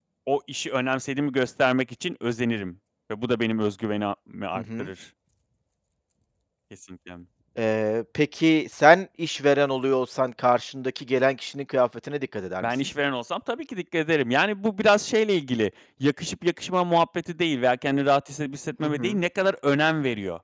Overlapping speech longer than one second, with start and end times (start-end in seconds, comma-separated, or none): none